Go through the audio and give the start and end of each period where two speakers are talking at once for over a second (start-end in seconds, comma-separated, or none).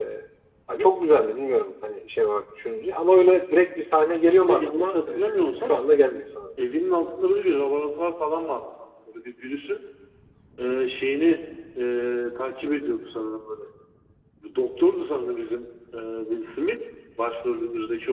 4.4-5.7